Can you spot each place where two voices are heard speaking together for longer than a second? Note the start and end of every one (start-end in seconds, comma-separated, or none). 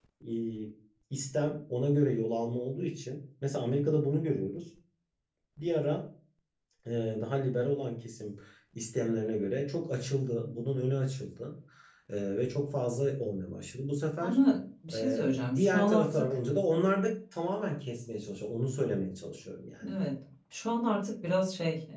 14.9-16.3